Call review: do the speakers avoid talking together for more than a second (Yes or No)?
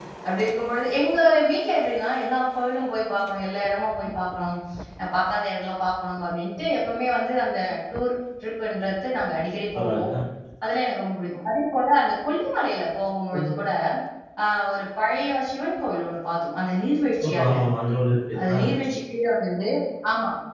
Yes